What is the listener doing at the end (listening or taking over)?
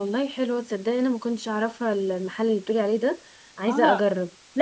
taking over